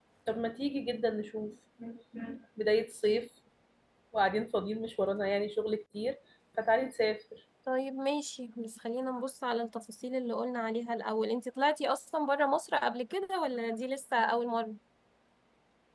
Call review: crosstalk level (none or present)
none